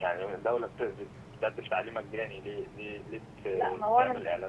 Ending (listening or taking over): taking over